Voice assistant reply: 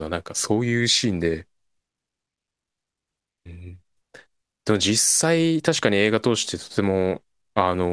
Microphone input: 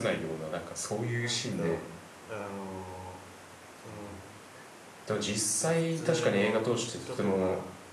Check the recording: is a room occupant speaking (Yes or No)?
Yes